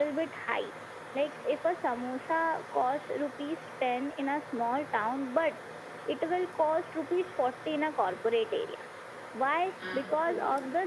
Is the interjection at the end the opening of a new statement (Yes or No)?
No